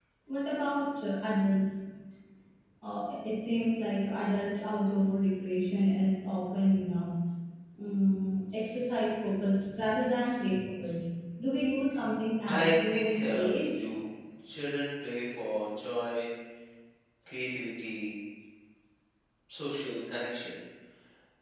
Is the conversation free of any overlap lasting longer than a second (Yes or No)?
No